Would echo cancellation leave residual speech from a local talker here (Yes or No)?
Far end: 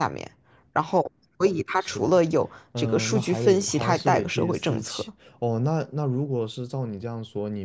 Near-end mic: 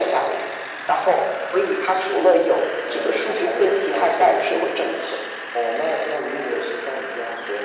No